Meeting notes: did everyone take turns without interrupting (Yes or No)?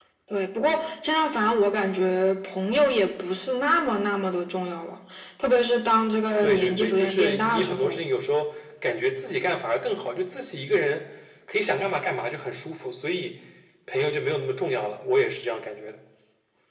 No